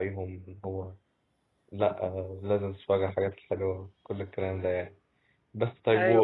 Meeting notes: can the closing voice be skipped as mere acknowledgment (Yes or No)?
Yes